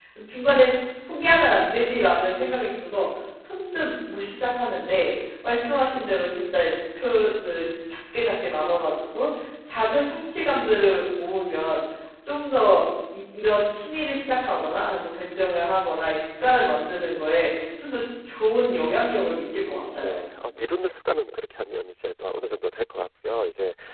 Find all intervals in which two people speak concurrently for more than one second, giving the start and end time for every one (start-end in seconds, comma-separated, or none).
none